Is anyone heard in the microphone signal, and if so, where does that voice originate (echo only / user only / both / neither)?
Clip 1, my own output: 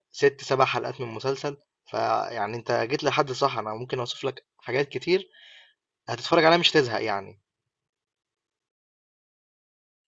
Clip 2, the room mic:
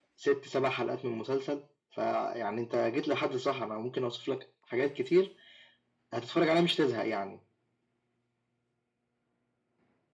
echo only